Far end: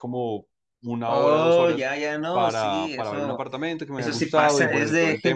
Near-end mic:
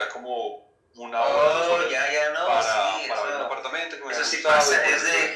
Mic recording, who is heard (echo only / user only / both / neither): echo only